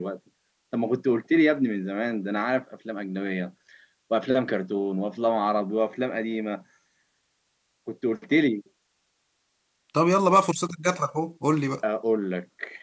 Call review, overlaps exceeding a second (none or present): none